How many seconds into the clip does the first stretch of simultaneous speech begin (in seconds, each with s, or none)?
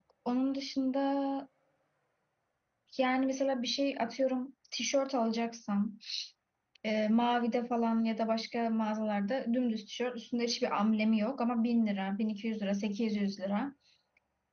none